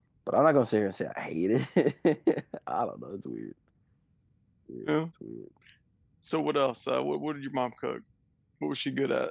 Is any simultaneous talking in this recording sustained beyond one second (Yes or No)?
No